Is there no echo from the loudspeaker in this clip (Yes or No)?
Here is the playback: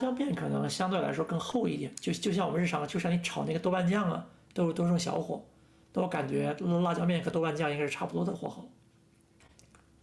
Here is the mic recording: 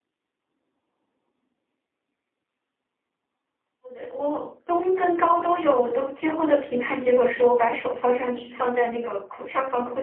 Yes